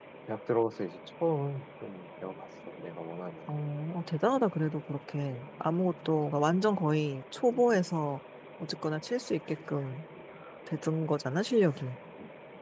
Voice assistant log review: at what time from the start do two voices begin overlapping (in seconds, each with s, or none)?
none